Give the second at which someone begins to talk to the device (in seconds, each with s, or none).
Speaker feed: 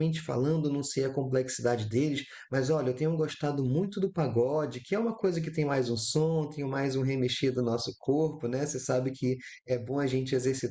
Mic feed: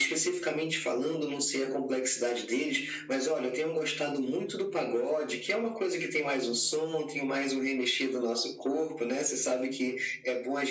none